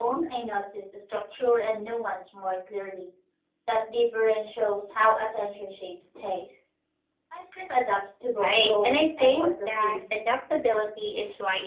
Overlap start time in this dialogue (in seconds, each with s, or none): 8.4 s